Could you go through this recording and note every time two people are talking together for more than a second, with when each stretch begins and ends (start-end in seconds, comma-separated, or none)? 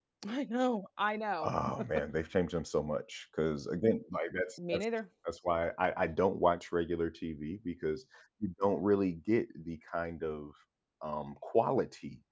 none